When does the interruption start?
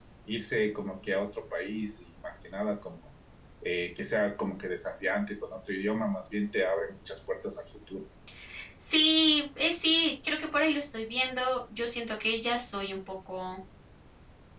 none

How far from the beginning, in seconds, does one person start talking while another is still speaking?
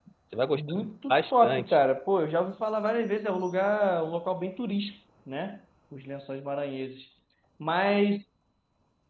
0.5 s

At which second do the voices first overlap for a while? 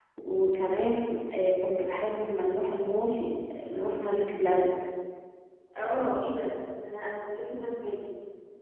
none

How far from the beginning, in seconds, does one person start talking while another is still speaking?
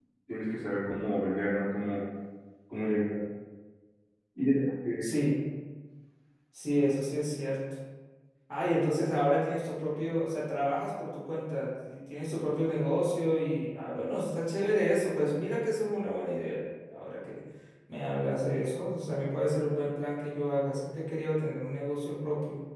none

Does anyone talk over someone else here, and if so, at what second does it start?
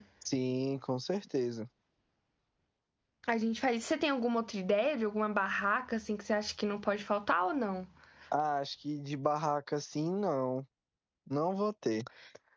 none

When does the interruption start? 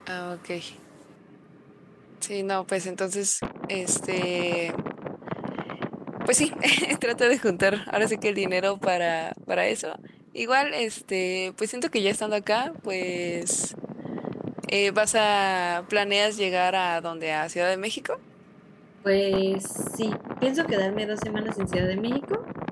none

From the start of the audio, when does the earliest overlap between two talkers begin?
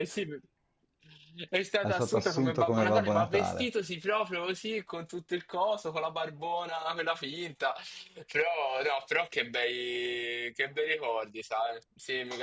1.8 s

